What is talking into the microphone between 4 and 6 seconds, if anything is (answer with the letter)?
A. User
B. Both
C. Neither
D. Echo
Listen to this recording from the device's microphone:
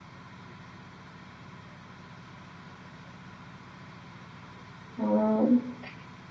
A